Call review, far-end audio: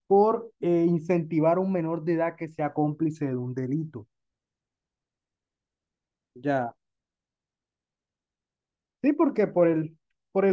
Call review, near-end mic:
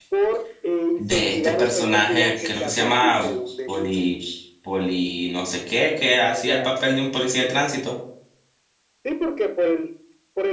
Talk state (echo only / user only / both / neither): both